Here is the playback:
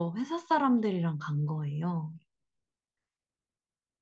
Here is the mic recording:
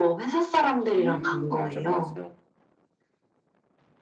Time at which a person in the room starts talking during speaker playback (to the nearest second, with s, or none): 1 s